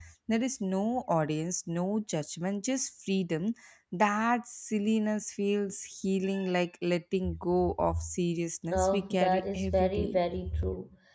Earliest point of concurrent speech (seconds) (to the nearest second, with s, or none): 9 s